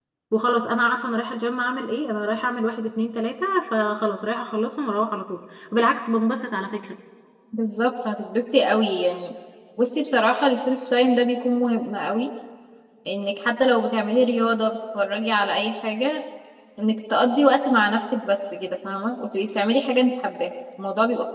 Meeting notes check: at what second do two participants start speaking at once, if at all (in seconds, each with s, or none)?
none